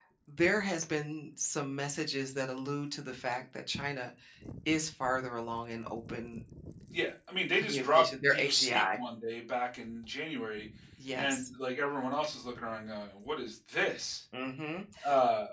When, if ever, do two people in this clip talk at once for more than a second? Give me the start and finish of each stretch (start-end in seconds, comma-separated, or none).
7.6-9.0